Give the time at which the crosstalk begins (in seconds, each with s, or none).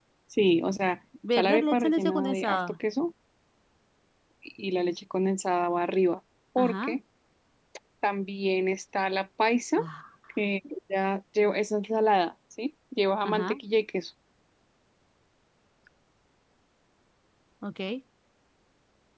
1.4 s